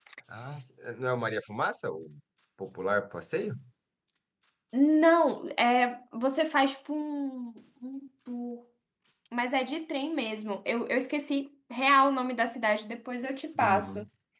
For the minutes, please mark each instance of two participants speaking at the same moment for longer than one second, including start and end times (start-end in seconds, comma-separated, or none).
none